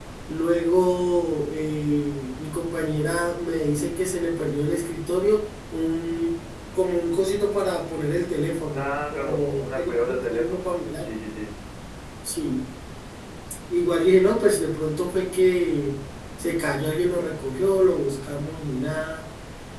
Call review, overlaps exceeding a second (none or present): present